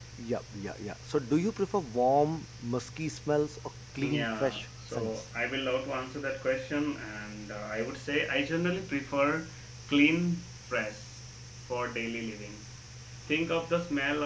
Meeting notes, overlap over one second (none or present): present